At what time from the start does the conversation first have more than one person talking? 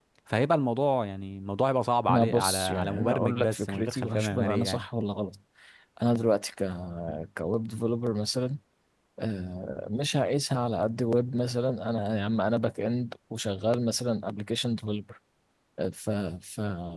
2 s

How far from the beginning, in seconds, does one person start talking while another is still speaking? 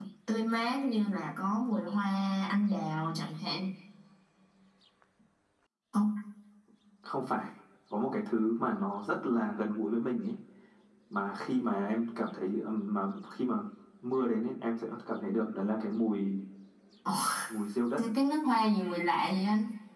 none

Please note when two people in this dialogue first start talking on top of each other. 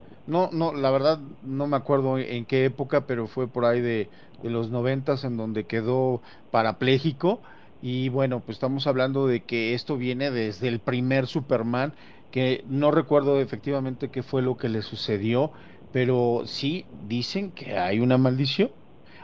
none

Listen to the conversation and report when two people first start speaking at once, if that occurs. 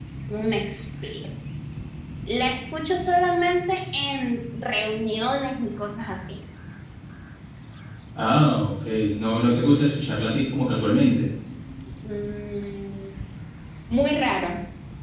none

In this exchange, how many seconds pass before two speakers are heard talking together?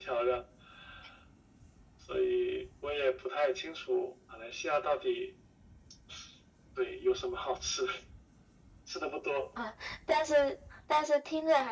none

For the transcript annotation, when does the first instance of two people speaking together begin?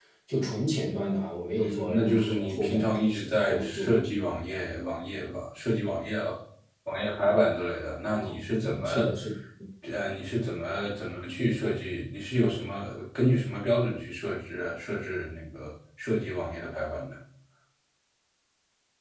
2 s

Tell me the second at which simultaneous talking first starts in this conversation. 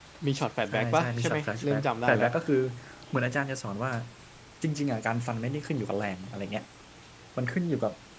1 s

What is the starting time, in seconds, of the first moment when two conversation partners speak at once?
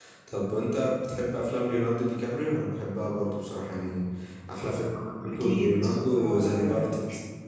5 s

